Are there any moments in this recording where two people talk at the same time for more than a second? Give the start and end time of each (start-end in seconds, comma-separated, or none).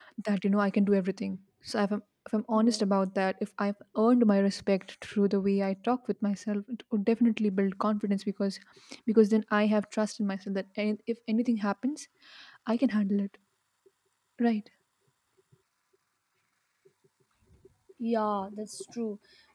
none